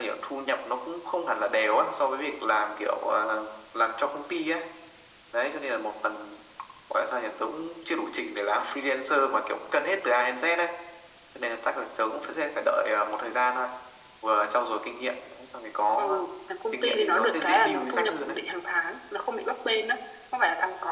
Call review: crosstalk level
present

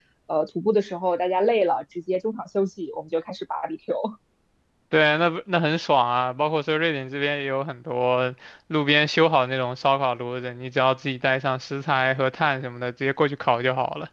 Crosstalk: none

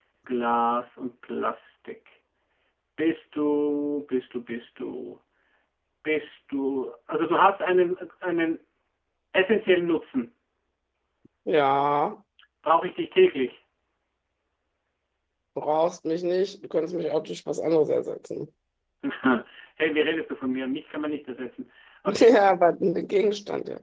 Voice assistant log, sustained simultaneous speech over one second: none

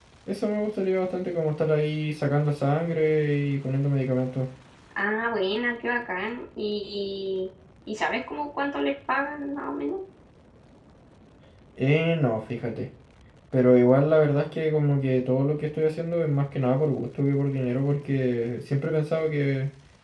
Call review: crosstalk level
none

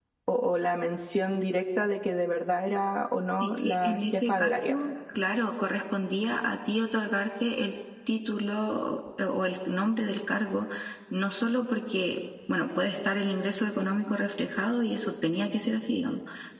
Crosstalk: present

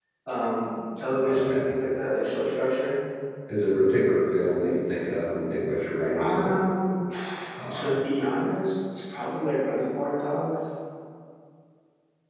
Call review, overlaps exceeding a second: none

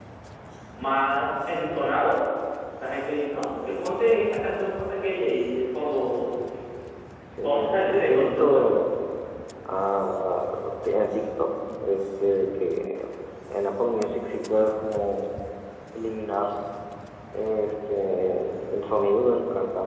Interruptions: present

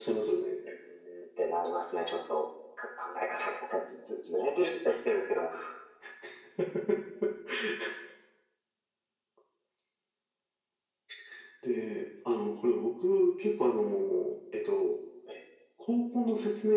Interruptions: none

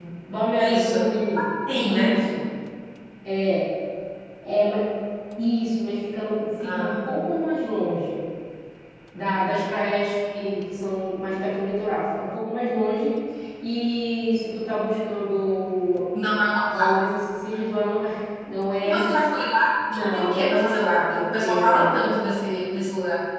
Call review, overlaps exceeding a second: present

